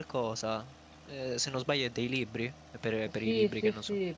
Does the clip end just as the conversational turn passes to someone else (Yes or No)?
Yes